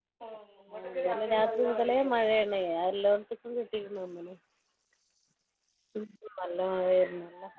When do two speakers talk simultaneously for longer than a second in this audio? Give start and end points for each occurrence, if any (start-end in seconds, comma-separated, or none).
0.7-2.3